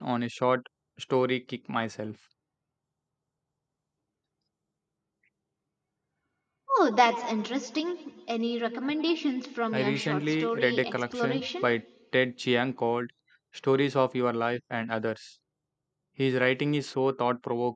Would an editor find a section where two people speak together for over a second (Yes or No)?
Yes